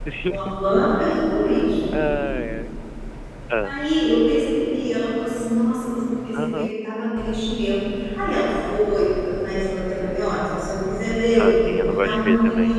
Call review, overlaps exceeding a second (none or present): present